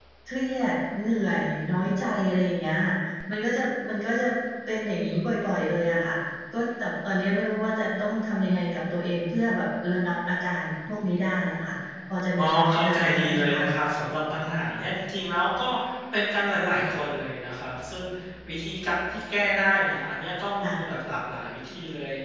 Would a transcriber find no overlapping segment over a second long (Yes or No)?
No